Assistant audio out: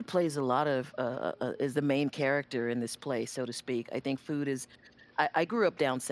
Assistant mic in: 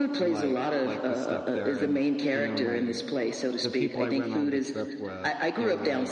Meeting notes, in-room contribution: present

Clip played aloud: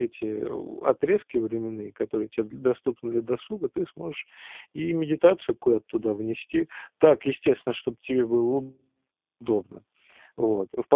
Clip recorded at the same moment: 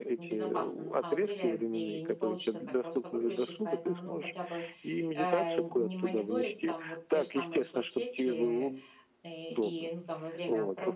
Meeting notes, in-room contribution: present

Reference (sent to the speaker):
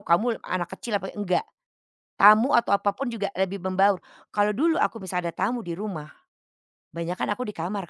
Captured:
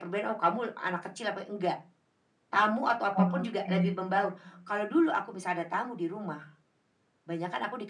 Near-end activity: present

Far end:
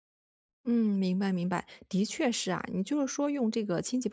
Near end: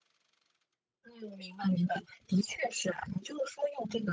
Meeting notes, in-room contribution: none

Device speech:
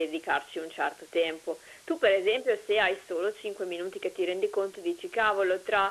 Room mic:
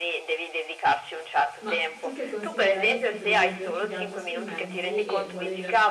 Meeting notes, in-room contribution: present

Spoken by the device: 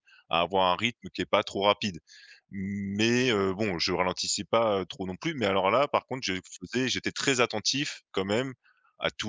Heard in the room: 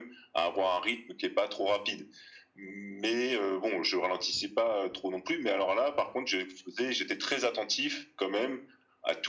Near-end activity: none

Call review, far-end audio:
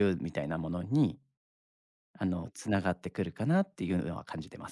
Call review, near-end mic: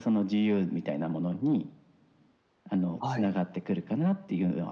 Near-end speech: present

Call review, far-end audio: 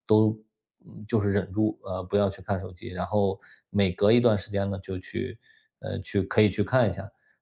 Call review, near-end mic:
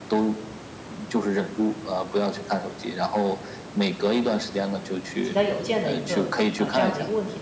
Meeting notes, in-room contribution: present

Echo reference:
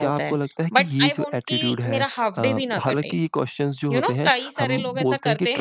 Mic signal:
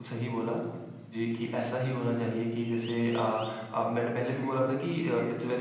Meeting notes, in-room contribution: present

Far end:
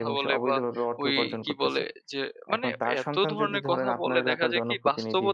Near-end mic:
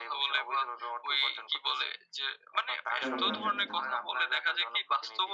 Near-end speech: present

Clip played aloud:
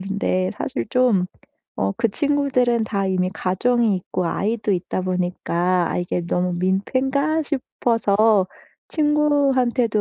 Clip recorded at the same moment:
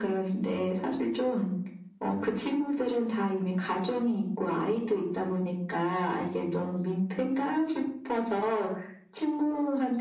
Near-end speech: none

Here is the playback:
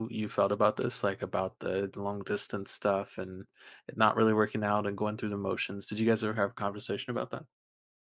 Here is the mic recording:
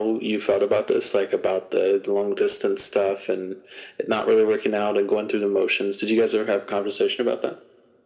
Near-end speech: none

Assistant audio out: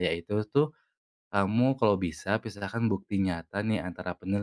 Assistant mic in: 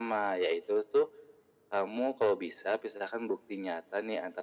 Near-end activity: none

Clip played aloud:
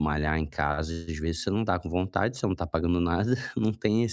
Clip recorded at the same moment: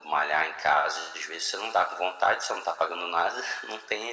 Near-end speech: none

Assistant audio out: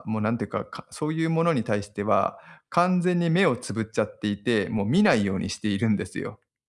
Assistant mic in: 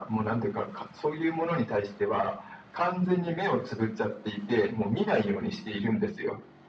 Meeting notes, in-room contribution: none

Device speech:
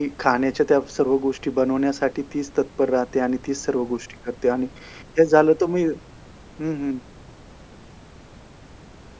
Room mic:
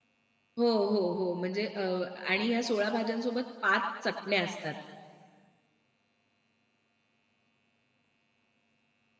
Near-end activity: present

